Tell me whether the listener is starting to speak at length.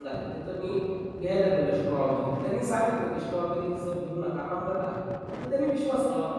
No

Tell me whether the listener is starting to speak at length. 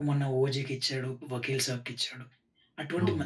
No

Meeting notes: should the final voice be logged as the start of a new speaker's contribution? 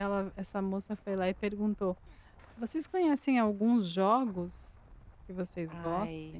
No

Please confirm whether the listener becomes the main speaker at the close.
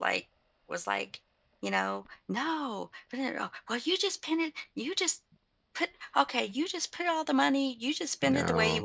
No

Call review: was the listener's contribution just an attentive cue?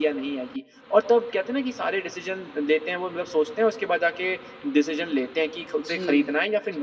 Yes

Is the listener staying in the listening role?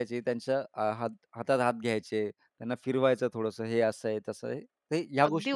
No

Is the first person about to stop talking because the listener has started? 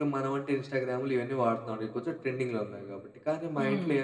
No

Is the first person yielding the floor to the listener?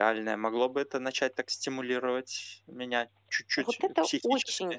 Yes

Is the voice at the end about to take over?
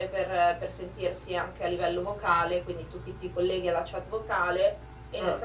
No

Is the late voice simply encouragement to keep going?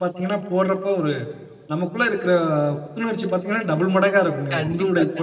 No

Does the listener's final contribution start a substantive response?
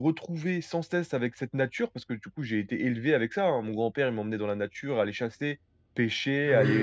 No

